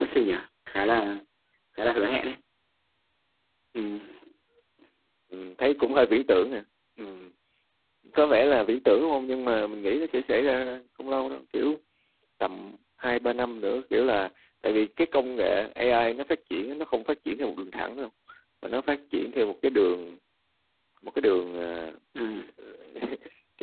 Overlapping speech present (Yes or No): No